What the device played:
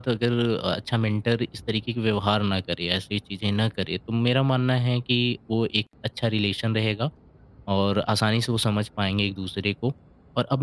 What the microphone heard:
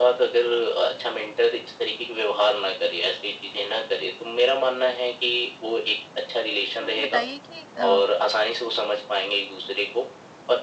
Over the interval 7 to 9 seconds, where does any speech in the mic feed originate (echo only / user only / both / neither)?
both